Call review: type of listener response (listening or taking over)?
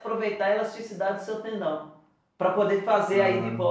listening